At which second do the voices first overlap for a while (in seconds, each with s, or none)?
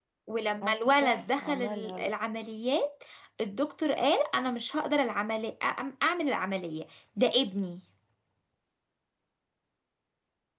0.6 s